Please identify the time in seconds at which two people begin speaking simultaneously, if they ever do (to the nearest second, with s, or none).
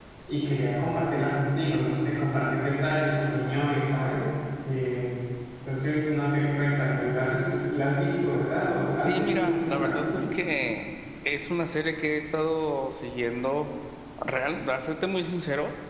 9 s